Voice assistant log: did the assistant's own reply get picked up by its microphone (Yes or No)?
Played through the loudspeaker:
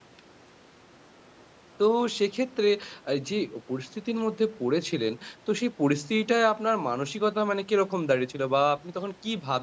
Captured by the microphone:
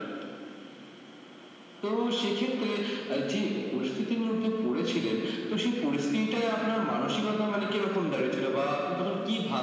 Yes